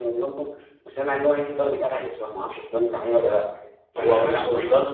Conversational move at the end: taking over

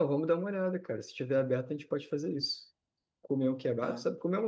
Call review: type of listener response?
listening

